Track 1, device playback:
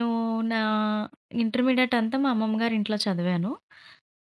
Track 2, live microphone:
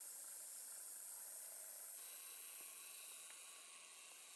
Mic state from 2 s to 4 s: neither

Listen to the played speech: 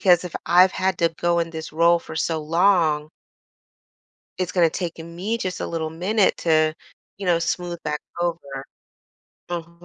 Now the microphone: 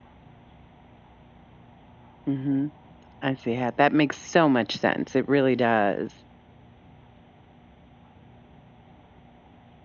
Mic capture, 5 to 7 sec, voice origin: user only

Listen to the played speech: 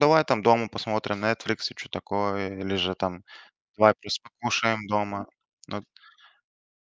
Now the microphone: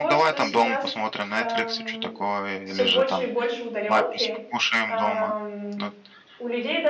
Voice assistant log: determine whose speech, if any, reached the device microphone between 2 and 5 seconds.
both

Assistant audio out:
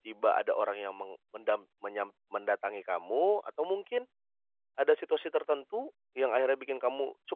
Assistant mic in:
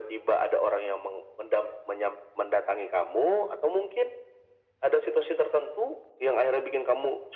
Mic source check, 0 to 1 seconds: echo only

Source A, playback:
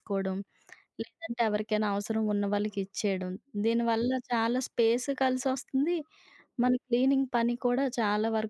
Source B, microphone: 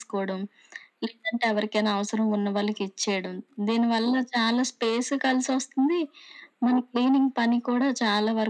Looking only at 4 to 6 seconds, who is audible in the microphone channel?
echo only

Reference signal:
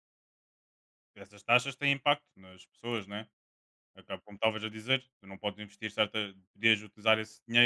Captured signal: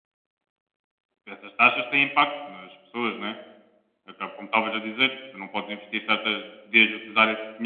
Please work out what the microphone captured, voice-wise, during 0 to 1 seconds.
neither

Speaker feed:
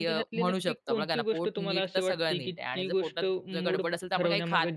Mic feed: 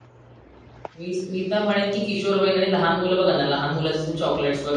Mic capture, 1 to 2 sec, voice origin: user only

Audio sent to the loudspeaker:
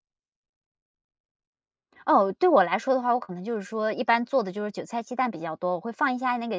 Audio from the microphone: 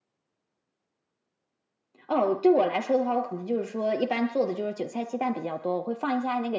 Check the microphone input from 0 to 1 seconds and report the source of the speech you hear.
neither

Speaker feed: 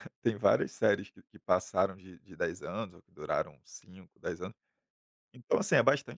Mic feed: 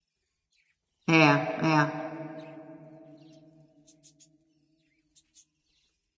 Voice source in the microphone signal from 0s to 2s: user only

